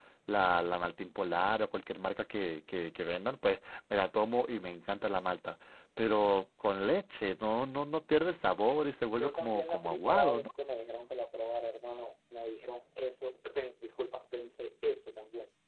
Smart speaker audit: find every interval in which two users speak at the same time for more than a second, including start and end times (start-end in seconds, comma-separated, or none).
9.2-10.5